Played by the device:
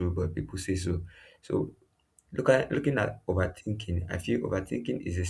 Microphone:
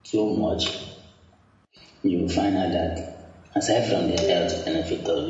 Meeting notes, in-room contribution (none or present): present